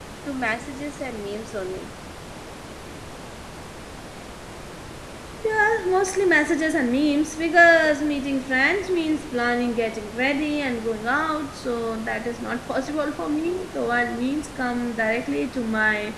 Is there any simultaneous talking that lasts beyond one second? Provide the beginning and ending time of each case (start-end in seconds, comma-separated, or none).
none